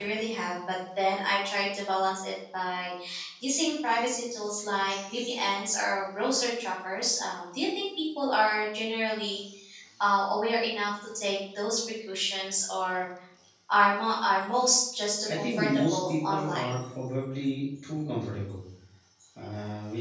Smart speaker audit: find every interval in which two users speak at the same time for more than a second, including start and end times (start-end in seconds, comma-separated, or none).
15.4-16.8